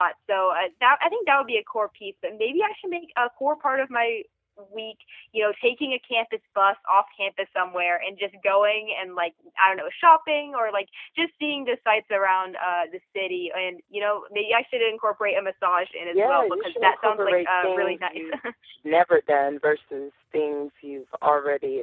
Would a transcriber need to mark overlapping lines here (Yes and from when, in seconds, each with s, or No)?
Yes, from 16.1 s